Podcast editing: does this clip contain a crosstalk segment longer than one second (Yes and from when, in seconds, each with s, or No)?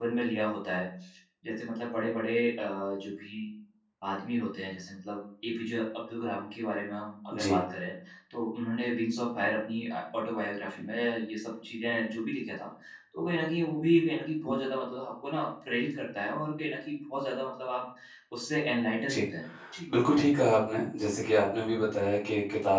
No